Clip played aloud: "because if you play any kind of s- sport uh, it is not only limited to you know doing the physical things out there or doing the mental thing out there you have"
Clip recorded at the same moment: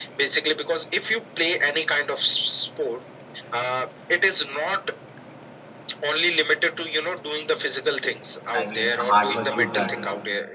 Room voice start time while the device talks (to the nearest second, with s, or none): 9 s